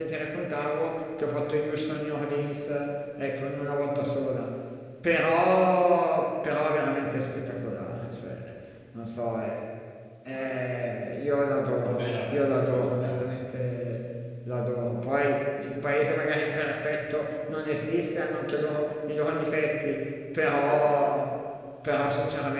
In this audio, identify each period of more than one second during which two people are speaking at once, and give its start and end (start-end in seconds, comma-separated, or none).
11.9-13.6